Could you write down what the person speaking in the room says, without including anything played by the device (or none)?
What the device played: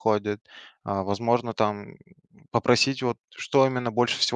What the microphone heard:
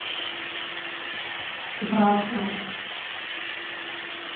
ты прав, да.